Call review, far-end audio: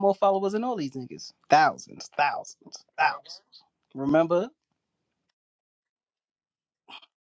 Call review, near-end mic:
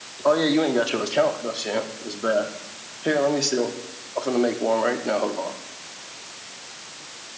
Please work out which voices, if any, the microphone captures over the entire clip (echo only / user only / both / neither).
user only